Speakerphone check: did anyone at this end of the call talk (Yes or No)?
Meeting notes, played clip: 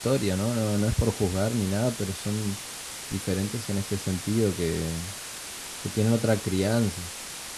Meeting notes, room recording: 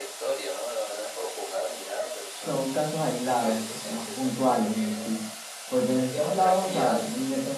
Yes